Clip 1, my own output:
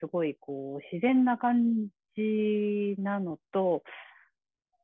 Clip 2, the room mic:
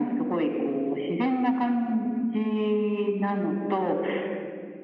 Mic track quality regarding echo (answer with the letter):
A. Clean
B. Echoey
B